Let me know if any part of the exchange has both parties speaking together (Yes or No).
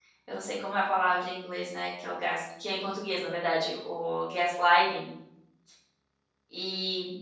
No